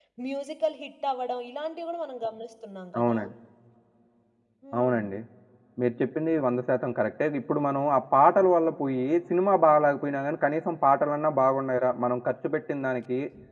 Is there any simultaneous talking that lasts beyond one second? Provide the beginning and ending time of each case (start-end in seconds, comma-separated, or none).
none